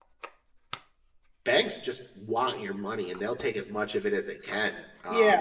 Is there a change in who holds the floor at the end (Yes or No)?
Yes